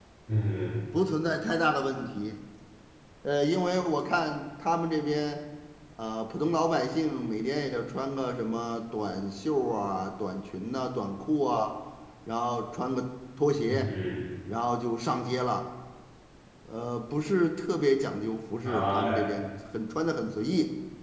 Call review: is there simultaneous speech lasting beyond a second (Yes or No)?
No